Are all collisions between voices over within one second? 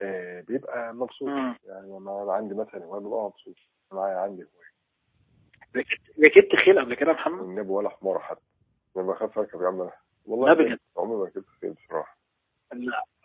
Yes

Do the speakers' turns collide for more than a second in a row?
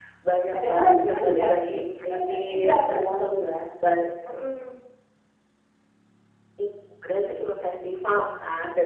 Yes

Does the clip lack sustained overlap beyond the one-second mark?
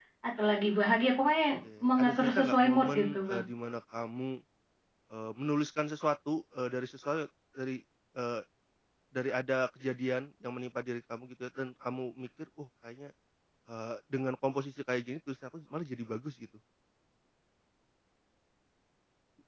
No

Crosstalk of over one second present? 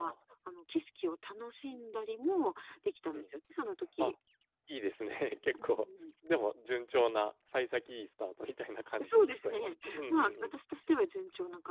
Yes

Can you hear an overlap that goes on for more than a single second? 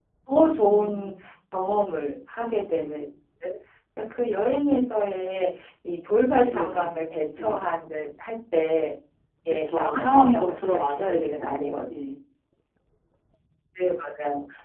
Yes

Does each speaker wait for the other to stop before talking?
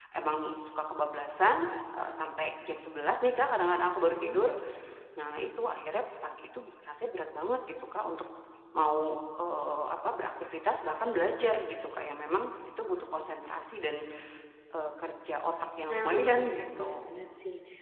No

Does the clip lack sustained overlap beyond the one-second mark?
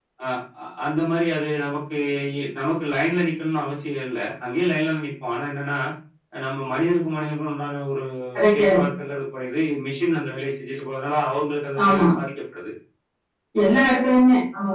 Yes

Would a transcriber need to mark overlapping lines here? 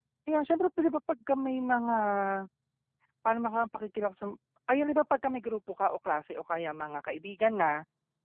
No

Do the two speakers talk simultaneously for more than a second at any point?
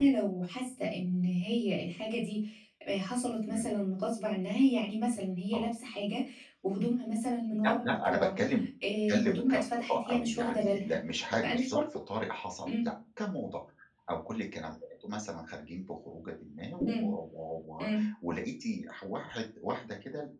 Yes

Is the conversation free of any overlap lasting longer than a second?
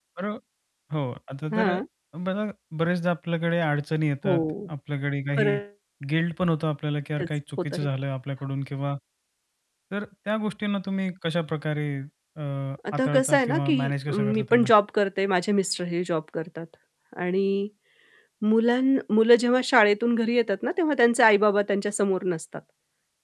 No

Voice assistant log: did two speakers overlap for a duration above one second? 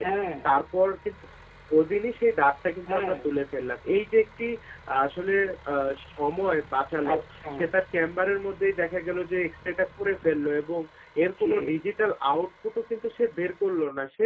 No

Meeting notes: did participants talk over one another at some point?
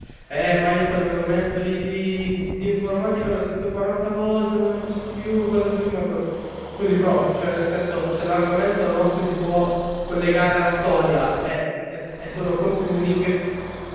No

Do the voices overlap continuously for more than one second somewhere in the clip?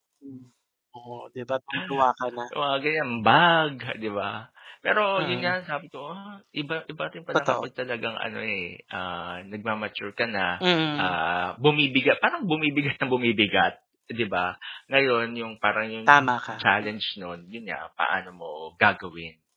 No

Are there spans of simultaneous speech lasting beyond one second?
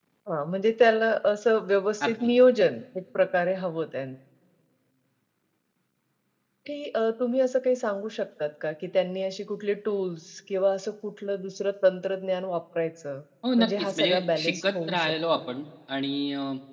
Yes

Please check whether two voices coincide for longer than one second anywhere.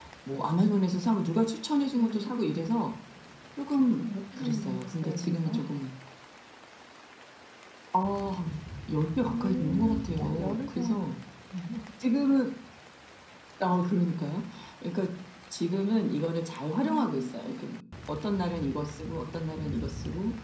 Yes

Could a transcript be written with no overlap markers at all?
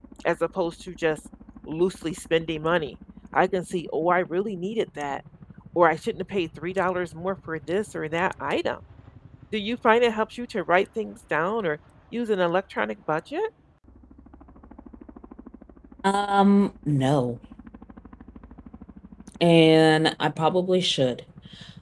Yes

